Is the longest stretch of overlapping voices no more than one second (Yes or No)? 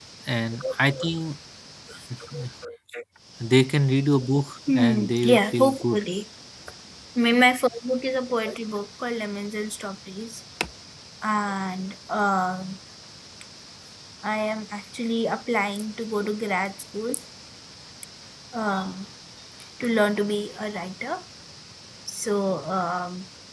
No